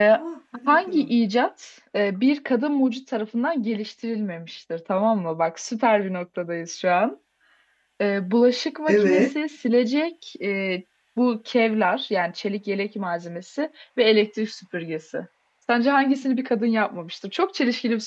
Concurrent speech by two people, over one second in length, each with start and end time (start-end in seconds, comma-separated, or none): none